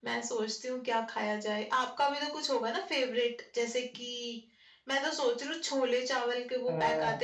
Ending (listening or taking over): listening